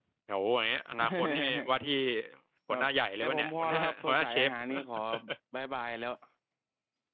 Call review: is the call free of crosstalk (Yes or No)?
No